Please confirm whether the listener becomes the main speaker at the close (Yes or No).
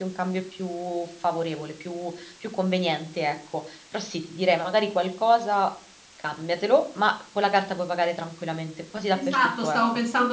Yes